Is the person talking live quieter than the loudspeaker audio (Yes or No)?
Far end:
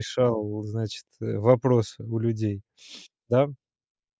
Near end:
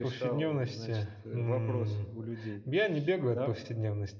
No